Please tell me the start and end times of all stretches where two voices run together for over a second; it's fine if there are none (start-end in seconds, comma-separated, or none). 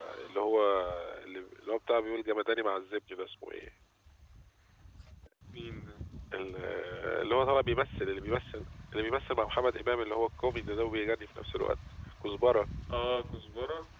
none